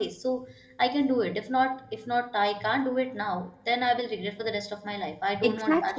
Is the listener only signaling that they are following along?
No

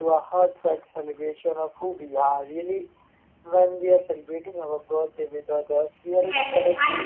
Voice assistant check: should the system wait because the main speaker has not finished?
No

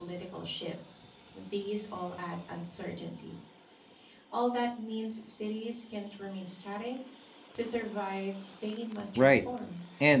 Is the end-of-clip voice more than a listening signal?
Yes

